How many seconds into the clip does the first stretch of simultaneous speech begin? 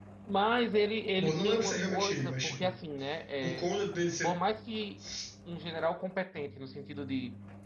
1.2 s

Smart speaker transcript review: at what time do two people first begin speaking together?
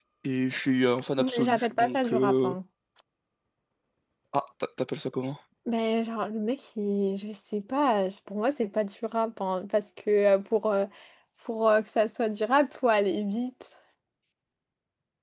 1.2 s

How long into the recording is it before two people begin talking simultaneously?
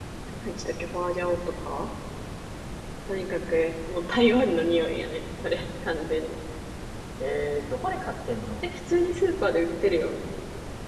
none

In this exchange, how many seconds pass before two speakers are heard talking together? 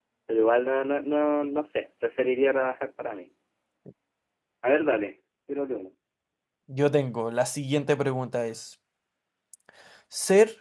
none

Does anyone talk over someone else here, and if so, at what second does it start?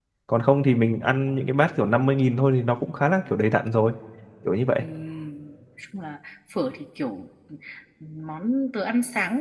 none

